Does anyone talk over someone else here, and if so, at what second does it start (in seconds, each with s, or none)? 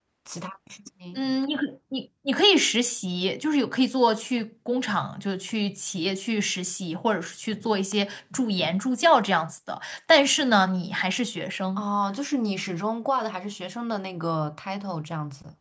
none